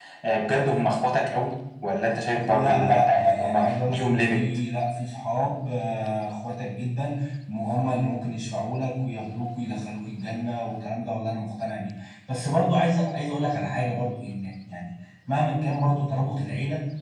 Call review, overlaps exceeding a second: present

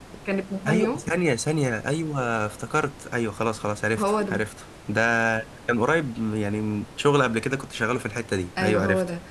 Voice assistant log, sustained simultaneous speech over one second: none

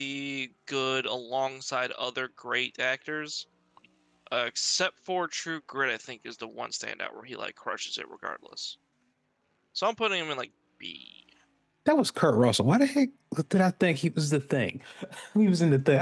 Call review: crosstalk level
none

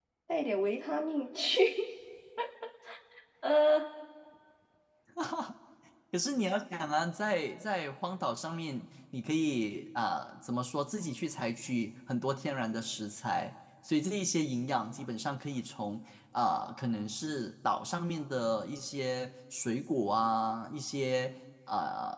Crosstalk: none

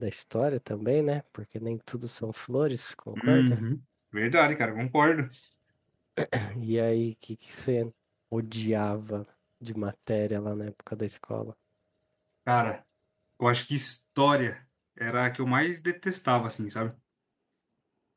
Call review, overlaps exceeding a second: none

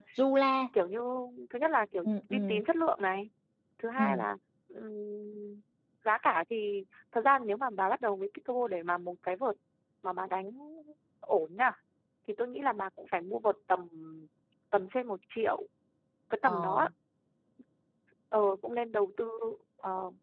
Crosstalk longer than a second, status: none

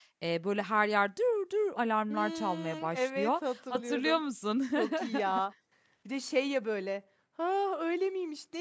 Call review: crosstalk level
present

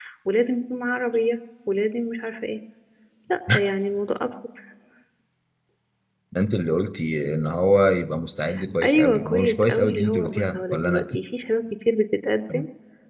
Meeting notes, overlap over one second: present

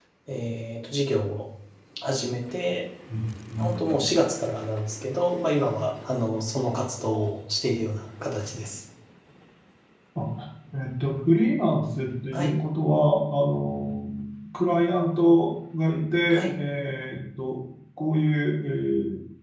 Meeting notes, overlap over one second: none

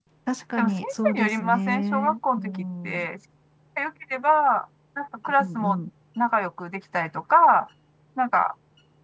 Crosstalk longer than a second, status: present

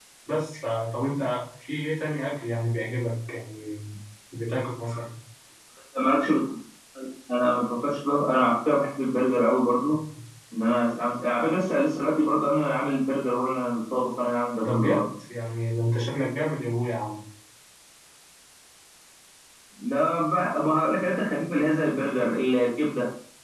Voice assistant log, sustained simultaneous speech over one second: none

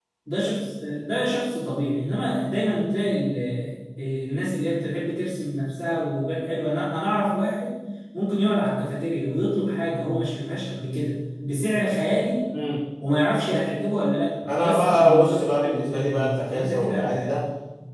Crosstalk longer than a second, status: present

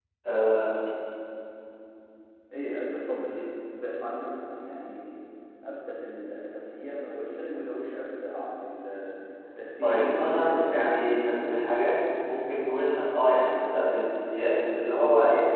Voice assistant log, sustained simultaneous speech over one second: present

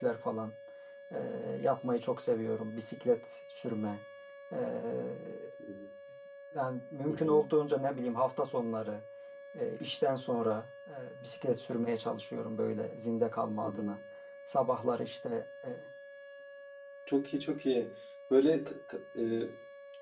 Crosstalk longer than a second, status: none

